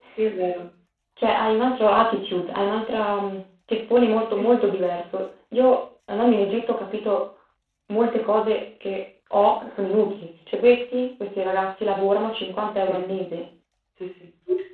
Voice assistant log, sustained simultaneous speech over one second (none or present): none